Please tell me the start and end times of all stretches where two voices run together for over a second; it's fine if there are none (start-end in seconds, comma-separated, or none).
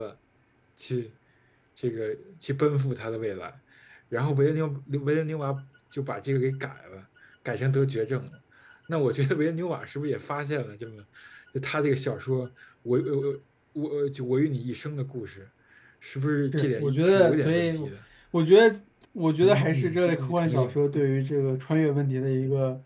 16.5-17.9, 19.4-20.8